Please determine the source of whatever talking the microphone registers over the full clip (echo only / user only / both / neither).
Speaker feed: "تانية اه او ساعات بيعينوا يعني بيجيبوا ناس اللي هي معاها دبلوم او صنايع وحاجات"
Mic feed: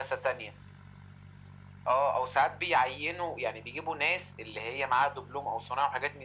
echo only